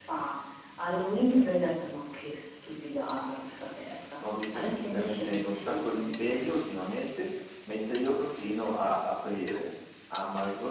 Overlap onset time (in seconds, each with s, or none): 4.2 s